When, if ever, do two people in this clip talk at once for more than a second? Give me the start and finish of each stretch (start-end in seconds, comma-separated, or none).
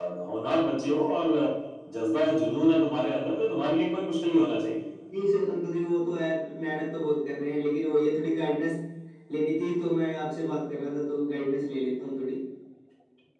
none